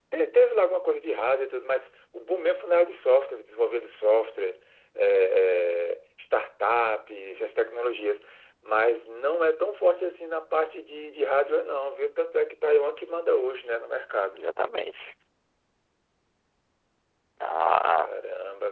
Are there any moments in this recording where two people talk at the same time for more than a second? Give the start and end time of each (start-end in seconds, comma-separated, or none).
none